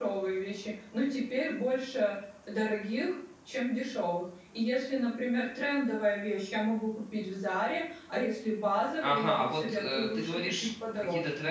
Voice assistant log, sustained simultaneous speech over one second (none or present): present